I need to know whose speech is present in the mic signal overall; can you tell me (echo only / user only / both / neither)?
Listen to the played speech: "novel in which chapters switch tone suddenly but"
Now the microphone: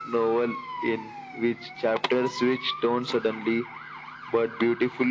echo only